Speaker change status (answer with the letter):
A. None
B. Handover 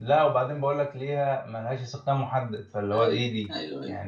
B